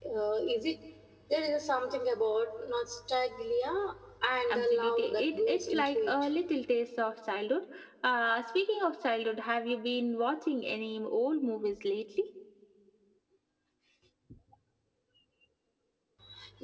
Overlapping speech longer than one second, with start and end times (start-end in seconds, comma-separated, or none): 4.5-6.3